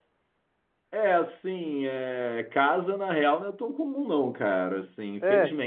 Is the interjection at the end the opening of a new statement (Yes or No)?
No